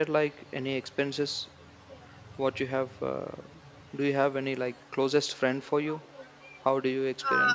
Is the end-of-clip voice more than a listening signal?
Yes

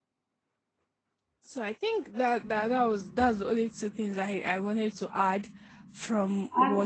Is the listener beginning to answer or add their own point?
No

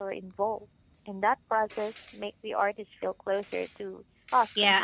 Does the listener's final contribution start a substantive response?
Yes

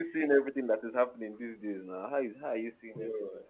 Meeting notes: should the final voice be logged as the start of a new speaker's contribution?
Yes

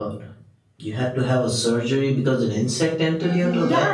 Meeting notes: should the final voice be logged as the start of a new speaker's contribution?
Yes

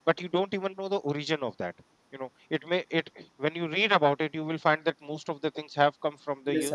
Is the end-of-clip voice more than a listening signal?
No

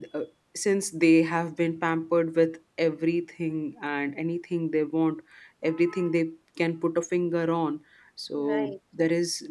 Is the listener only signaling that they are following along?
Yes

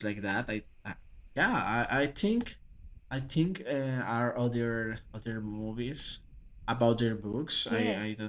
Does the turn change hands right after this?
Yes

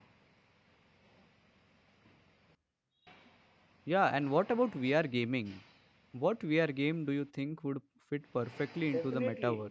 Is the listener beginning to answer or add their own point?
Yes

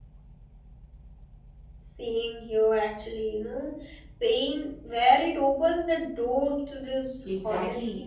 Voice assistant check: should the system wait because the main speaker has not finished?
No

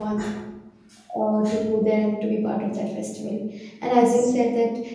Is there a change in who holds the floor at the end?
No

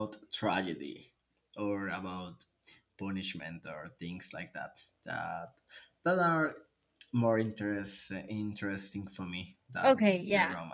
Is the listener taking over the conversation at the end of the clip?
Yes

